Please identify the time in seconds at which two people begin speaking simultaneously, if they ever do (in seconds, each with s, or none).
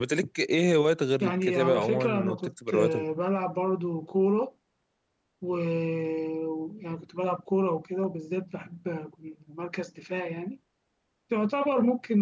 1.2 s